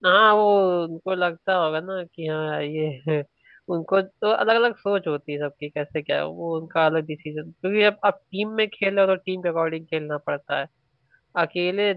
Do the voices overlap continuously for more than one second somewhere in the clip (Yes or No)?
No